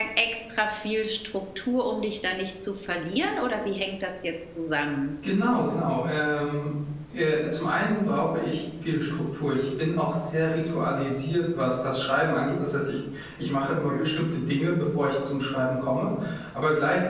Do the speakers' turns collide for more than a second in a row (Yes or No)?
No